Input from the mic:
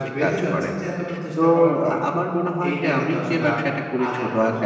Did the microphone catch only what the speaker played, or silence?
No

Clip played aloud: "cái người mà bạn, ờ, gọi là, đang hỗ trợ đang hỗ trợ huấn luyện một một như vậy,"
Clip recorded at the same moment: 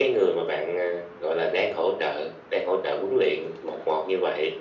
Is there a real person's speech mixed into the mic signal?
No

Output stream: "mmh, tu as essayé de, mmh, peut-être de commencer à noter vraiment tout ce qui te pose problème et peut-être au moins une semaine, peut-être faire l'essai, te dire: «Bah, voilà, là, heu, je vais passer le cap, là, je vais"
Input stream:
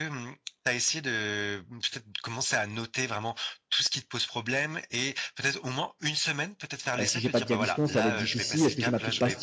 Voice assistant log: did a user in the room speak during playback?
Yes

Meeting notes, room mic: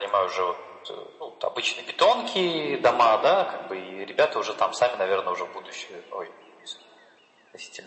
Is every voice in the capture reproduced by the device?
Yes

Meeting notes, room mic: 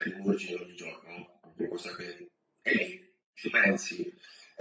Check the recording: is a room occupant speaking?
No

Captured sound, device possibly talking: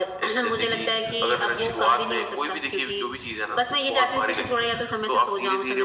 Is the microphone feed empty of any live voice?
Yes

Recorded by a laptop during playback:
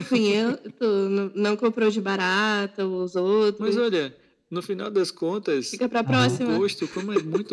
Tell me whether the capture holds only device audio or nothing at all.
No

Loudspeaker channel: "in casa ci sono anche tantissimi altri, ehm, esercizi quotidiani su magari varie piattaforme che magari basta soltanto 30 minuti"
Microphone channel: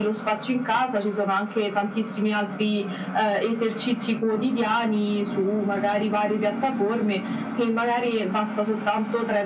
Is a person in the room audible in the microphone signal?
No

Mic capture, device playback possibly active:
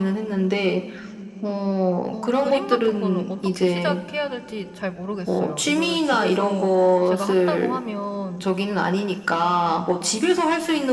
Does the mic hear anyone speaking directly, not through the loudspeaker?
Yes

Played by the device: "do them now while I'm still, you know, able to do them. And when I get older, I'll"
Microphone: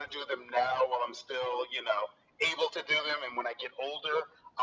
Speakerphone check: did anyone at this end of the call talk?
No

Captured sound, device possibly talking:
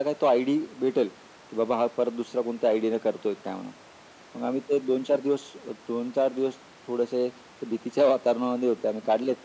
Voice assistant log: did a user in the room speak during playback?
No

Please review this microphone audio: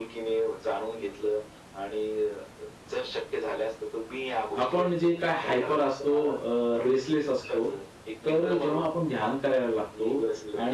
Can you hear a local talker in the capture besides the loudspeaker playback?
Yes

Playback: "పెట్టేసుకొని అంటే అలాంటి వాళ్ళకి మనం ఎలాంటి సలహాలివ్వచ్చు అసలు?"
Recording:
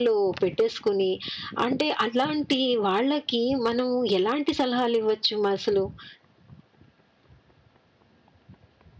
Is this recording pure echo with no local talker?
Yes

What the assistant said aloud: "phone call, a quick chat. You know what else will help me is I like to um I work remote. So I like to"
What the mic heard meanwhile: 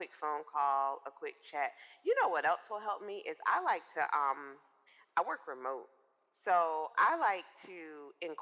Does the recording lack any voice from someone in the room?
Yes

